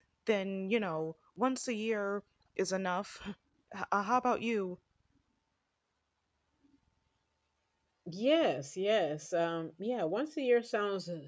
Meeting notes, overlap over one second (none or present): none